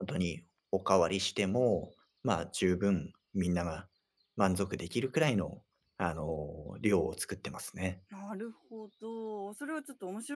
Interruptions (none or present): none